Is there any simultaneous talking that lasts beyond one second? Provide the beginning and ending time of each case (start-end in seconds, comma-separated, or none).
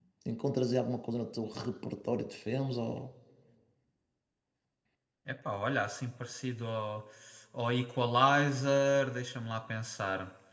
none